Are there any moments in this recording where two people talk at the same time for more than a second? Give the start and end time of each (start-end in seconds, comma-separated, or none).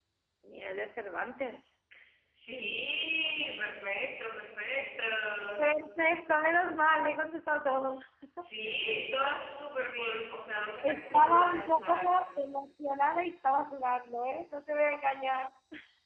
10.8-12.2